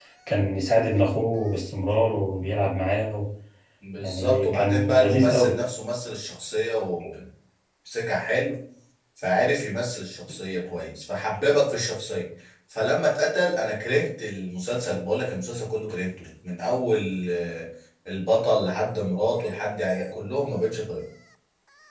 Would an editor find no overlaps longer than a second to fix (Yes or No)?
No